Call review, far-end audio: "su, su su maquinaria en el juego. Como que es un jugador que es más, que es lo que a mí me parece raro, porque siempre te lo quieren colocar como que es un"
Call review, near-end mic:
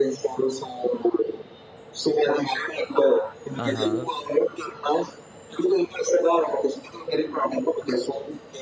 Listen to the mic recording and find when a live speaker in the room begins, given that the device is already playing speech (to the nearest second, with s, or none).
4 s